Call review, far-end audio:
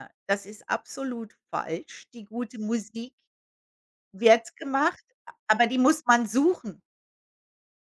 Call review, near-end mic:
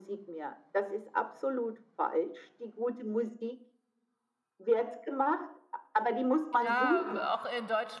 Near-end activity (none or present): present